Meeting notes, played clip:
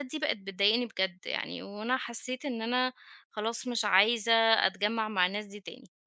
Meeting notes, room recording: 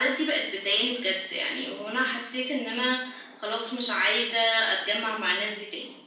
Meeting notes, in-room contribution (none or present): none